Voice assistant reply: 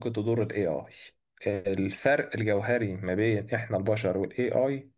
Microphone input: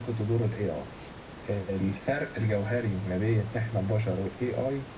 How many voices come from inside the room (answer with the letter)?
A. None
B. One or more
A